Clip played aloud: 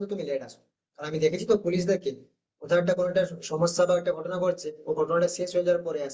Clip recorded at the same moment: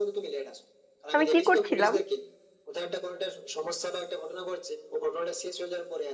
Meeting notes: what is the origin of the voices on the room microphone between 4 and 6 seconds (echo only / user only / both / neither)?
echo only